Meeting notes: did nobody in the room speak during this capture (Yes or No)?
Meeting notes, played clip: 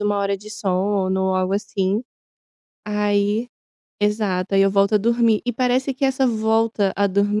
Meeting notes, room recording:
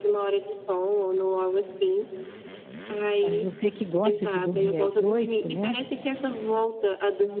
No